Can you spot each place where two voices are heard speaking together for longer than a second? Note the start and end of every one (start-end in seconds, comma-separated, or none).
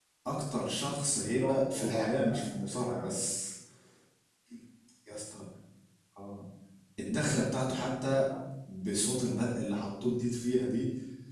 1.1-3.3